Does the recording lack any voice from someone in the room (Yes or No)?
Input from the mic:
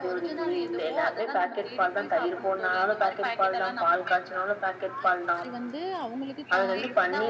No